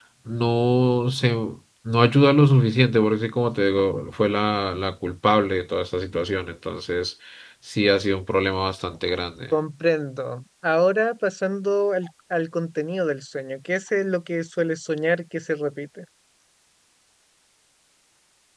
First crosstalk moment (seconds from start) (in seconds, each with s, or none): none